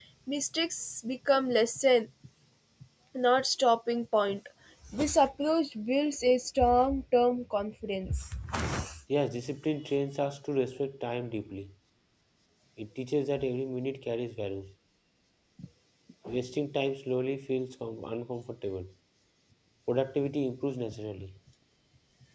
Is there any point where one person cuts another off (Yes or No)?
No